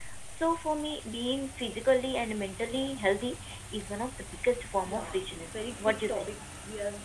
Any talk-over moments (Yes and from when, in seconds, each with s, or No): Yes, from 4.8 s